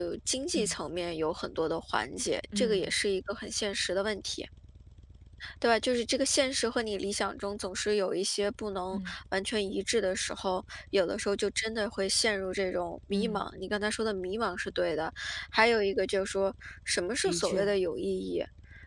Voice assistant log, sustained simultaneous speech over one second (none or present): none